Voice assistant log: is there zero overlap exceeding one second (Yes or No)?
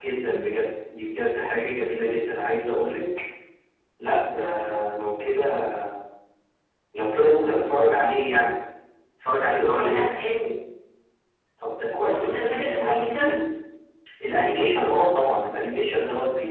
No